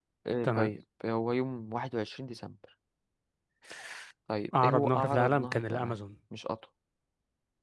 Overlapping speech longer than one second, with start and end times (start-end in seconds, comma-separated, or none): 4.6-6.0